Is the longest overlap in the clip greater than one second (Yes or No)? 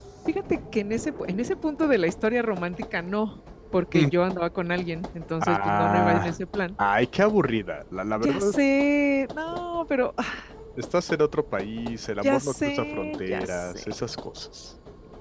Yes